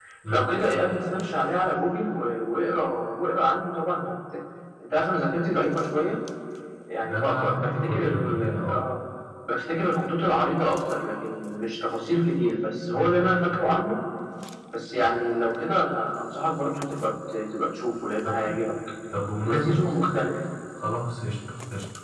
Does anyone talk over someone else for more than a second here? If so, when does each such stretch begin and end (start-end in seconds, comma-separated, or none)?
7.1-8.8